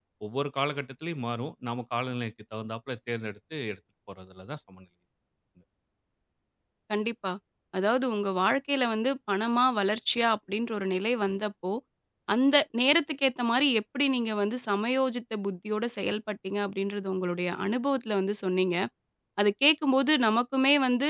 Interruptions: none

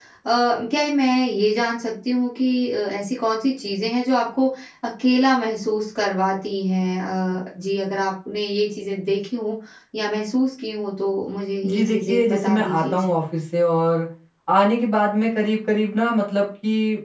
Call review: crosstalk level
present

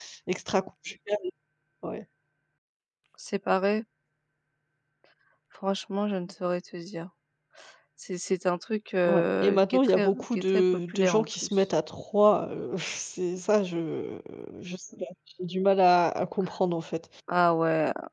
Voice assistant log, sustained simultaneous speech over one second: present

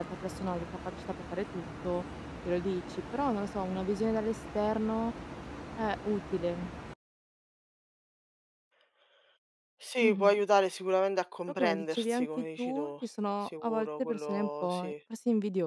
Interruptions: present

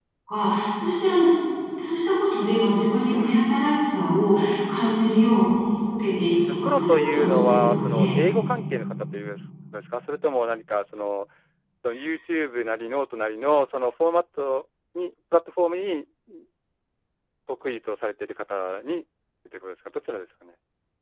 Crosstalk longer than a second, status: present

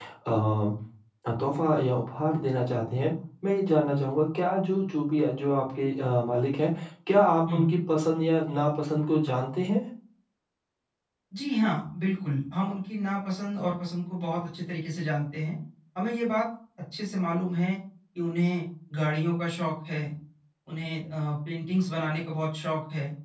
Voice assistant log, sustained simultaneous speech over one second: none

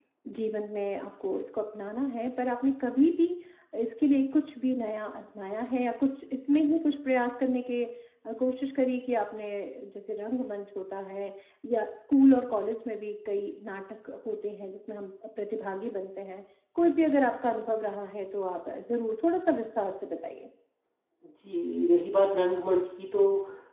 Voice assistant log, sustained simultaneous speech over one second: none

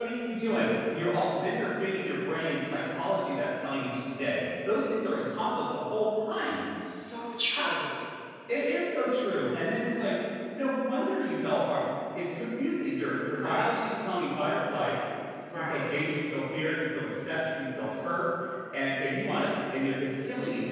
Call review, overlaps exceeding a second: none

